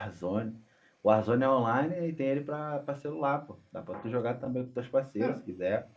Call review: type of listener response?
taking over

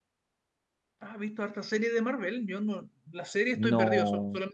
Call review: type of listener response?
taking over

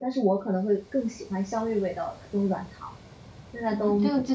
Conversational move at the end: taking over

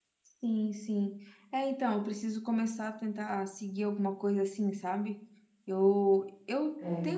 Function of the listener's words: listening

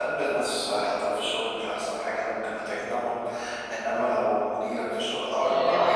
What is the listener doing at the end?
listening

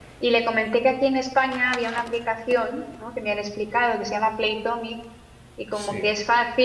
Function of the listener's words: listening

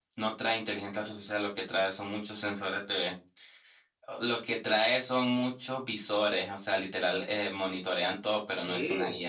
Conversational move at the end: taking over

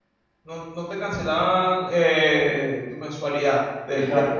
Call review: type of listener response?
taking over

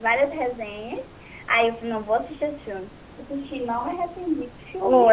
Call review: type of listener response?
taking over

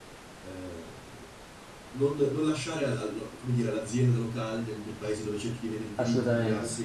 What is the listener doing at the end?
listening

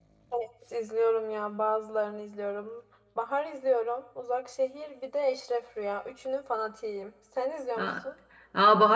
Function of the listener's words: taking over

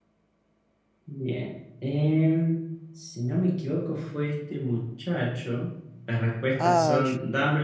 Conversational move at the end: listening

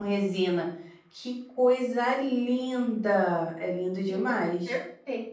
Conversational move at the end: taking over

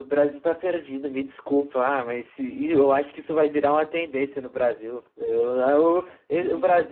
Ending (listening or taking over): listening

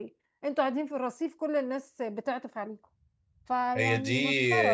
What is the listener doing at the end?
taking over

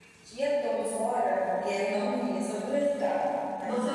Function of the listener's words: taking over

